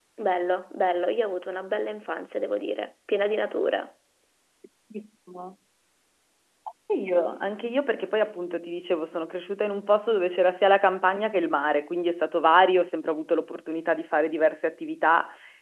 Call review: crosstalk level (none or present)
none